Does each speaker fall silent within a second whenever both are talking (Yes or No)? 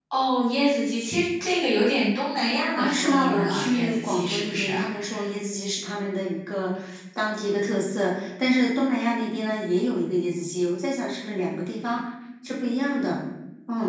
No